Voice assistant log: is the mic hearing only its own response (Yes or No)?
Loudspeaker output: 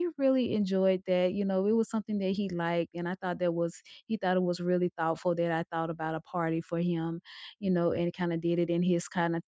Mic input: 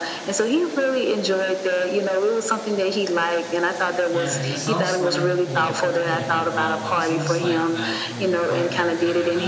No